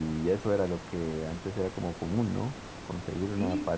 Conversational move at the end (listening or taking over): listening